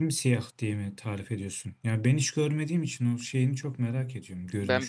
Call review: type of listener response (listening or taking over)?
taking over